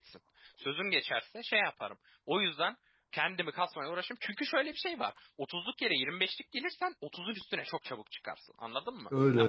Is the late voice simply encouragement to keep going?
Yes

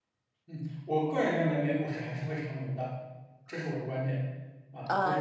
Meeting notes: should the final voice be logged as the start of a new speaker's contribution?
Yes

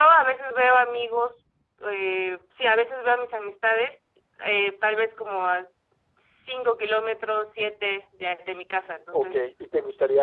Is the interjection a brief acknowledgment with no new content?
No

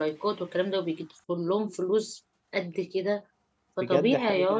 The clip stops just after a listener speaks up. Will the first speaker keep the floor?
No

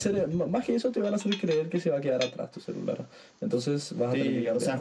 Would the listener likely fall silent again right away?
No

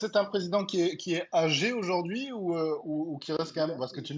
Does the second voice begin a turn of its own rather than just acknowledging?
No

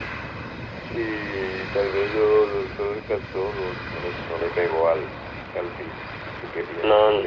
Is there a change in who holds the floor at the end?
Yes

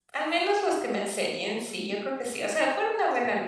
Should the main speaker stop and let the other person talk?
No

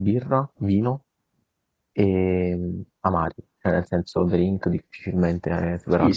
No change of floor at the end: No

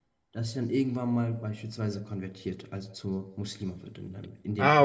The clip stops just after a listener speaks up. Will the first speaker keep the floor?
No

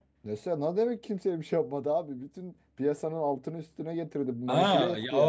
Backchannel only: No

